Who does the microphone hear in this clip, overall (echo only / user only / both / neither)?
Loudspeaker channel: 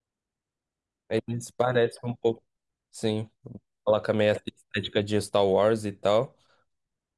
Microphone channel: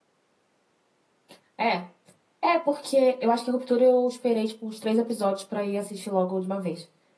user only